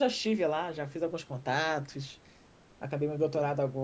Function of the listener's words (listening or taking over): listening